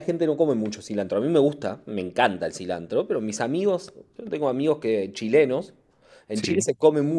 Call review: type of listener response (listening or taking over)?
listening